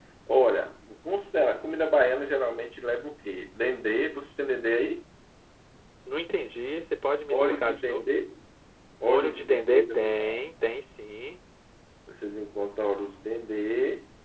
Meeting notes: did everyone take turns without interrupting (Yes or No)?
No